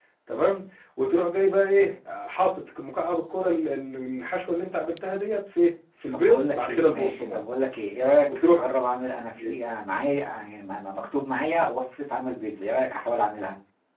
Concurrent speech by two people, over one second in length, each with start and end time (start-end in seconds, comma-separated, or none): 6.1-7.4